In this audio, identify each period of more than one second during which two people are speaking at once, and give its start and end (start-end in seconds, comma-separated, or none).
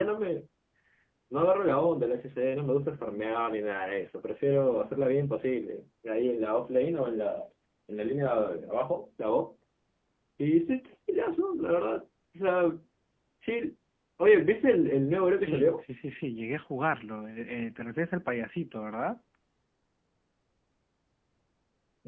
none